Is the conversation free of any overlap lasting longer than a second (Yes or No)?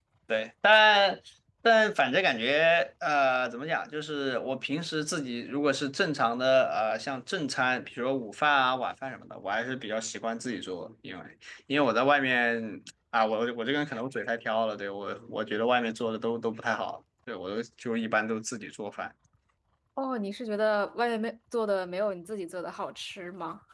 Yes